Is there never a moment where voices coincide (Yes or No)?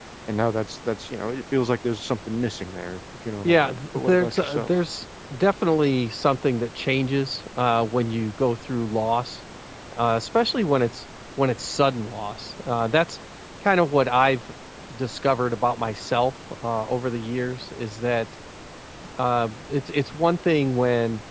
No